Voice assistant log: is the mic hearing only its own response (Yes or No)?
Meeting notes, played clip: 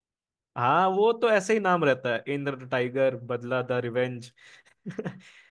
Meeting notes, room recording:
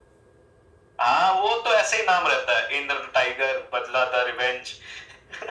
Yes